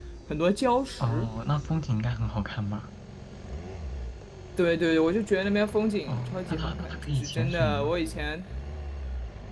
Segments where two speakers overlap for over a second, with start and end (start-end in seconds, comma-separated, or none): 6.1-7.9